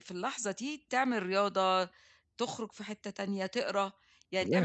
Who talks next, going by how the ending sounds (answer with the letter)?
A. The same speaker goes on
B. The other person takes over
A